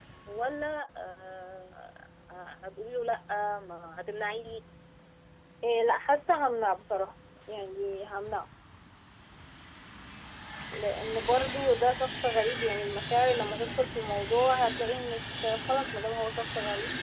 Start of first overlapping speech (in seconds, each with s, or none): none